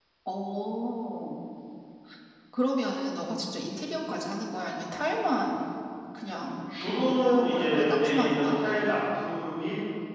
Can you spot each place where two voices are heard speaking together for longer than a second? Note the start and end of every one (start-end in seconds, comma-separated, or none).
6.8-8.6